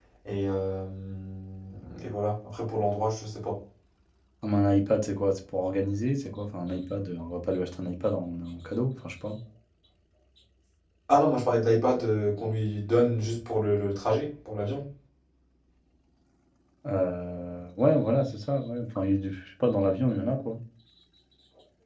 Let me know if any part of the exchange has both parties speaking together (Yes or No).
No